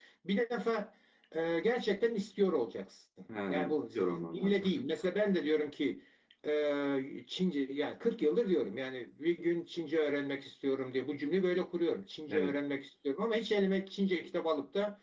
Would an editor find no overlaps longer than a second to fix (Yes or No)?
No